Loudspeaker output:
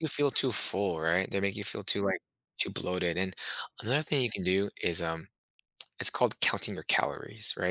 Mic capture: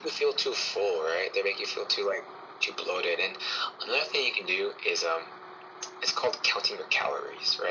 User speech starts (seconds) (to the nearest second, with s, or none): none